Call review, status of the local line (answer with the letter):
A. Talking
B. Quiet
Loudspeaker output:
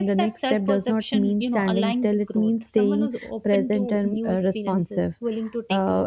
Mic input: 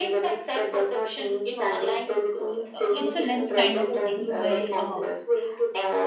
A